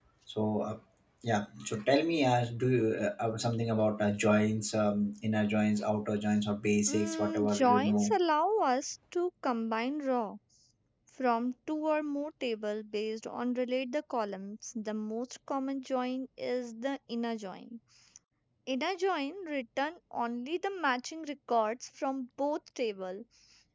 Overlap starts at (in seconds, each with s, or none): 6.9 s